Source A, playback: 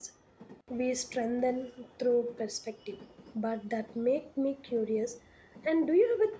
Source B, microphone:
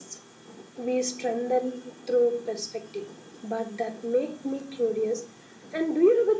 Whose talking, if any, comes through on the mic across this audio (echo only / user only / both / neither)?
echo only